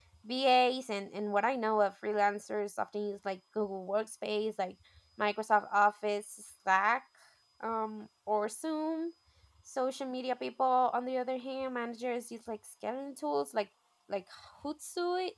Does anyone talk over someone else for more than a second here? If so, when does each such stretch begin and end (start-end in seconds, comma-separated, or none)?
none